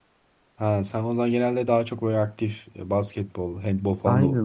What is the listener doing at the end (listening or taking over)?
taking over